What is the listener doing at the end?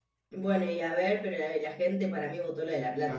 taking over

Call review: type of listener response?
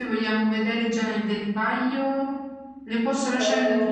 taking over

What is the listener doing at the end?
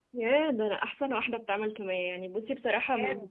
listening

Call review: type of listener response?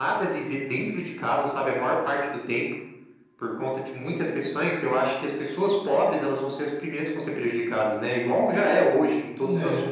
listening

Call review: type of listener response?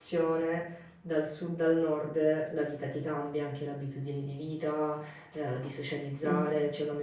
listening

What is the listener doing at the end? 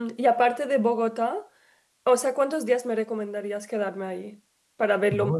taking over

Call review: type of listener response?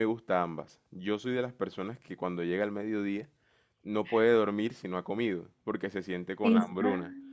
listening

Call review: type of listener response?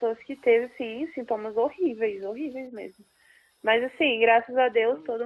listening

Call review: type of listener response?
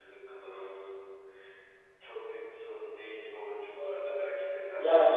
taking over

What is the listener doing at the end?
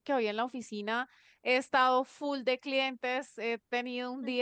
listening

